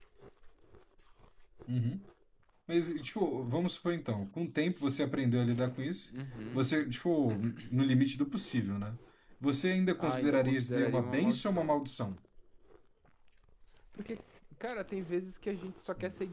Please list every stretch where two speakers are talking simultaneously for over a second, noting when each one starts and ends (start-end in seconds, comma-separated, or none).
10.0-11.8